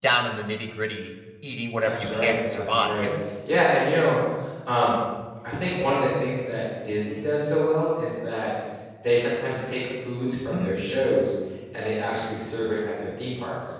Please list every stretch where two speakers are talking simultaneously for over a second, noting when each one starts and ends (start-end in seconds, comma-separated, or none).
1.8-3.1